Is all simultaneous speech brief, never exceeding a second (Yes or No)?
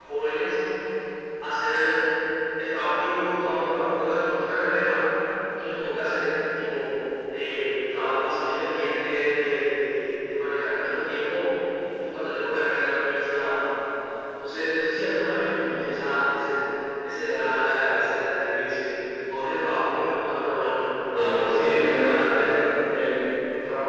No